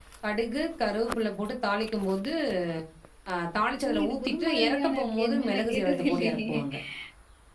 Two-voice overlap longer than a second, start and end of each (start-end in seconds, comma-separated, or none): 3.8-6.6